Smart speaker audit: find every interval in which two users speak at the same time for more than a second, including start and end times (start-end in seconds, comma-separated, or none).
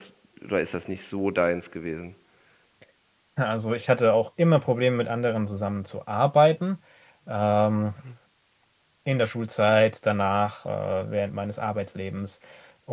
none